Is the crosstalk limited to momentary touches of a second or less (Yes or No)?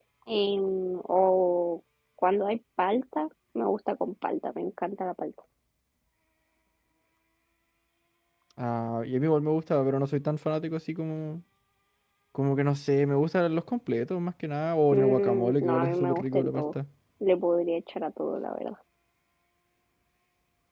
No